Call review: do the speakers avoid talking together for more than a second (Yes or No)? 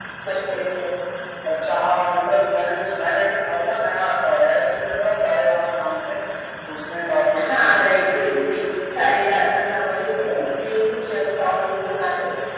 Yes